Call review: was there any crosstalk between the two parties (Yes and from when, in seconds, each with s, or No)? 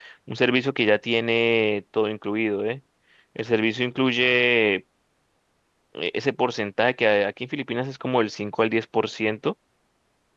No